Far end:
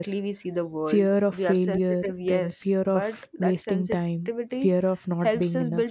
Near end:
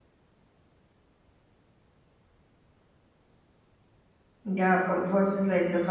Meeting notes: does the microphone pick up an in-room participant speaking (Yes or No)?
Yes